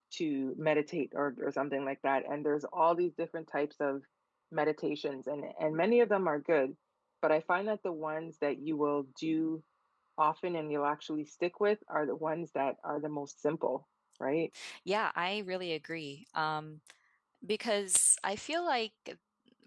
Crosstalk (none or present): none